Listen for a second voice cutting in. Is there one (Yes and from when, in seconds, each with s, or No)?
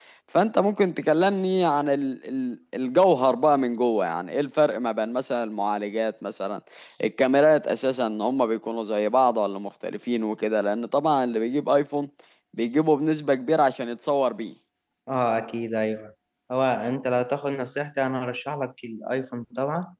No